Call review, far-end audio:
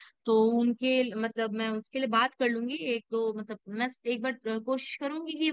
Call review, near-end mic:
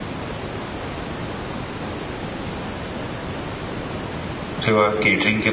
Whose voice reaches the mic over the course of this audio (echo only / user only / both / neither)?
user only